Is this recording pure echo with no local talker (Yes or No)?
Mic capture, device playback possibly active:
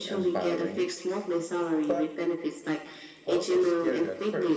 No